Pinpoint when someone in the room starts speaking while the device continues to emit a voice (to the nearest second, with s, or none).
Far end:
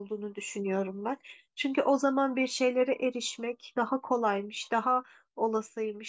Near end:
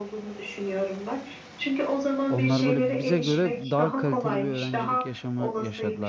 2 s